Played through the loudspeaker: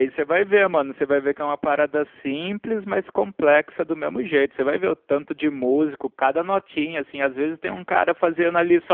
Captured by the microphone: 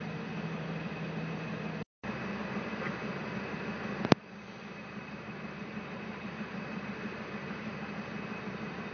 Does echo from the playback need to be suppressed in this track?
No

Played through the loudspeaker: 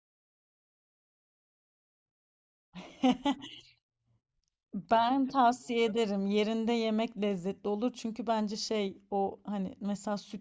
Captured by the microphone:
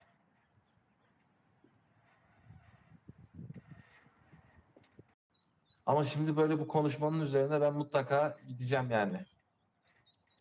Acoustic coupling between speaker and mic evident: No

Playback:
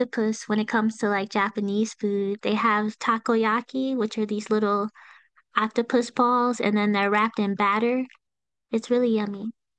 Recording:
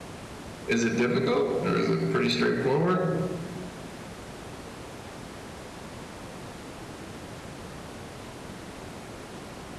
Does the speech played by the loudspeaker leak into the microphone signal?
No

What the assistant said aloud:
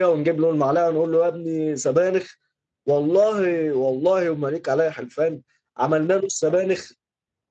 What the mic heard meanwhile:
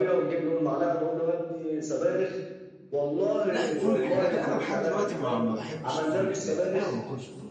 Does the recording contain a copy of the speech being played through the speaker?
Yes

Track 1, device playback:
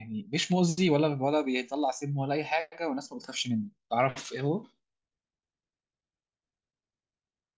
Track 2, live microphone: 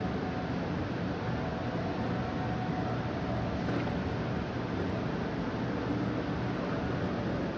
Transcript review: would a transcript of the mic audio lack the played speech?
Yes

